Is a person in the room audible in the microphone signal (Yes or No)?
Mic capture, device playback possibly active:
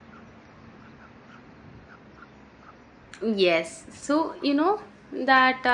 Yes